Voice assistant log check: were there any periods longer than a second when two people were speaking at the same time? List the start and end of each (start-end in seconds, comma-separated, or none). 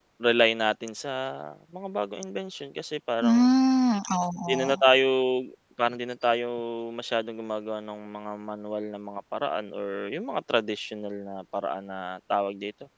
none